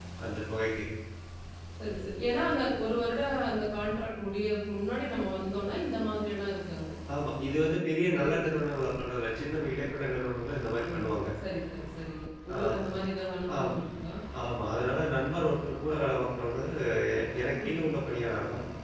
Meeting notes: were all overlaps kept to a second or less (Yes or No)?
Yes